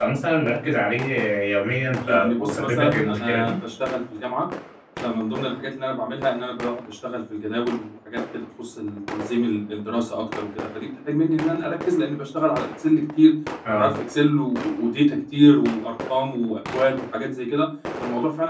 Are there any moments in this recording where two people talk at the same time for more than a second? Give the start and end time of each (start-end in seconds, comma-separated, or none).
2.1-3.5